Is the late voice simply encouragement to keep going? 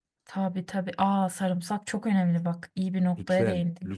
No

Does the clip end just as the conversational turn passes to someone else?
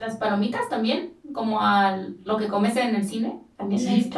Yes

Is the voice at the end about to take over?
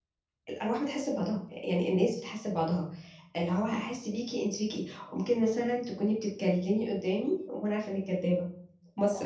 No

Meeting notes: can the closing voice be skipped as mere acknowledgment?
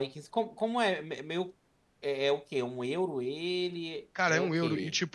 No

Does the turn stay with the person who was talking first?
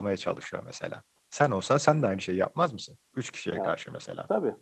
No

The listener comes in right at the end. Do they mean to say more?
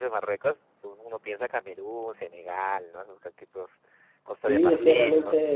Yes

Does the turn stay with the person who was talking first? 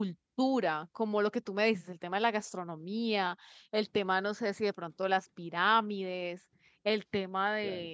Yes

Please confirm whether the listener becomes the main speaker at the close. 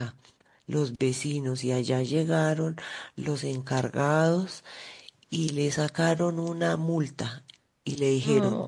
No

